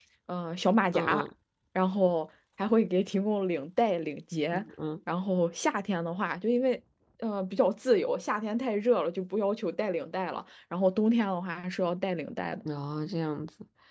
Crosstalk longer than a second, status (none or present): none